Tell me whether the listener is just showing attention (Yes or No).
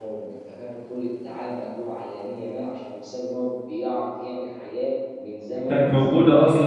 No